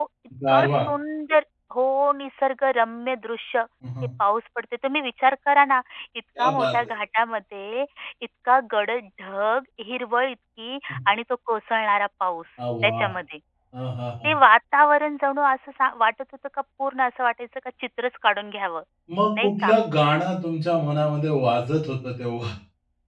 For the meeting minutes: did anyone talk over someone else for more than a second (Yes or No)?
No